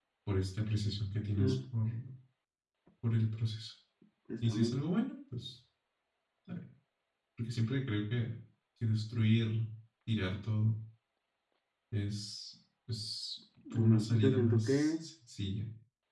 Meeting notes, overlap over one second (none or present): present